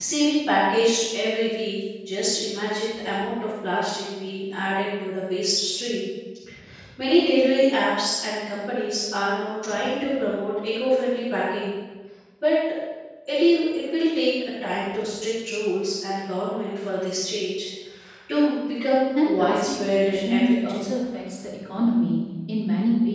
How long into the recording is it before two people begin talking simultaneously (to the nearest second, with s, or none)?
19 s